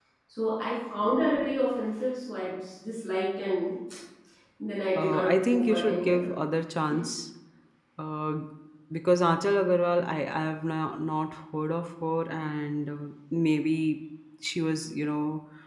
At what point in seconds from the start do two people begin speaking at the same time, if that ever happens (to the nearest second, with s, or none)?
5 s